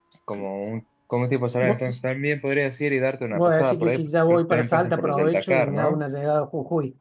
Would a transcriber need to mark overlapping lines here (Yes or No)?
Yes